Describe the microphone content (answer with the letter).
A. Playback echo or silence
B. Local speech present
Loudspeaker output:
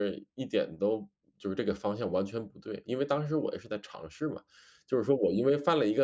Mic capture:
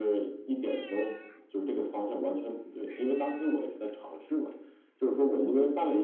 A